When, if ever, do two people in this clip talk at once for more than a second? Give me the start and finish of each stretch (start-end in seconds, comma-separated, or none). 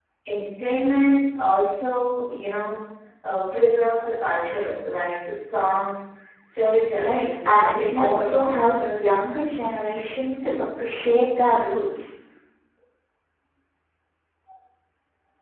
6.9-9.2